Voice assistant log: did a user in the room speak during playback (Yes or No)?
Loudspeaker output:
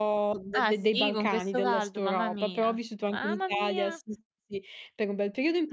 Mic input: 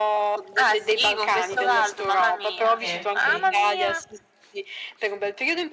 Yes